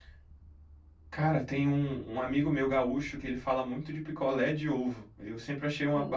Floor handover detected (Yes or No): Yes